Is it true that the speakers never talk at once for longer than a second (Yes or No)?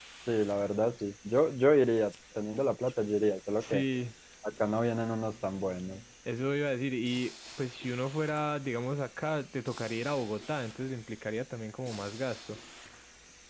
Yes